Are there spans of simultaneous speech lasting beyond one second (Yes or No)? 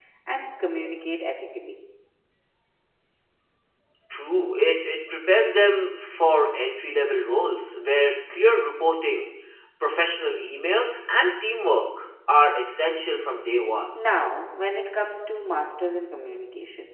No